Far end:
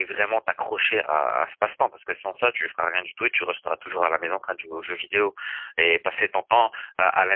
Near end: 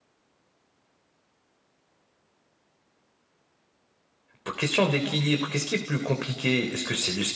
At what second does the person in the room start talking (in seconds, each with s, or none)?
4.4 s